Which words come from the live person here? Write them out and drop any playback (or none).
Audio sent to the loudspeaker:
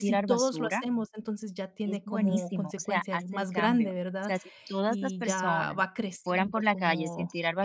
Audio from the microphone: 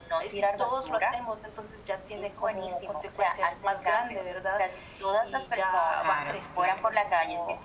claro, claro.